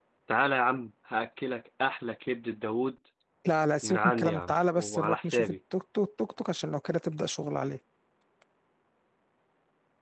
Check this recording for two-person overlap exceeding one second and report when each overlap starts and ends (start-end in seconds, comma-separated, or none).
3.8-5.6